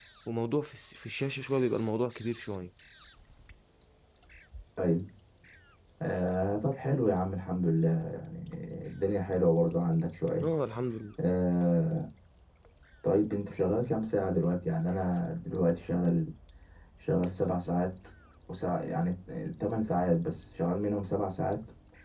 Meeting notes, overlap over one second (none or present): none